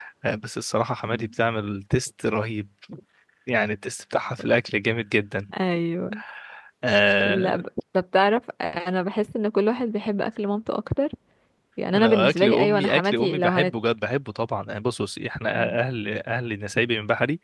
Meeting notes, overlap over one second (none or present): present